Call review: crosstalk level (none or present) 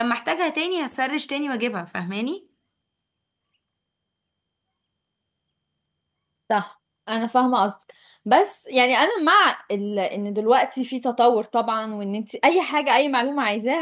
none